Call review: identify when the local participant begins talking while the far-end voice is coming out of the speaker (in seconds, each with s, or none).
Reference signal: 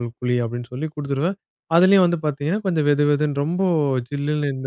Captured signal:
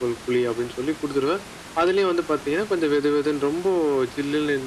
none